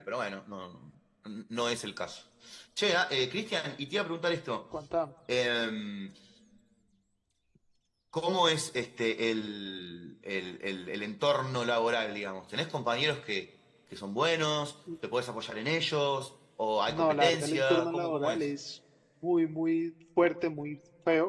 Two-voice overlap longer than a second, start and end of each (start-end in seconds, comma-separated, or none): 16.9-18.5